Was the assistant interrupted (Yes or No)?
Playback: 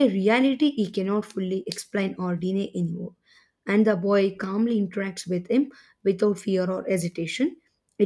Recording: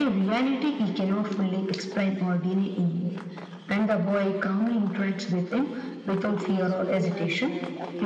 Yes